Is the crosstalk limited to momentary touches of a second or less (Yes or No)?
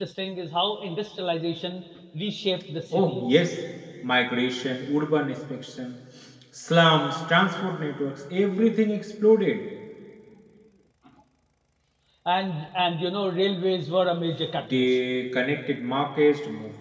Yes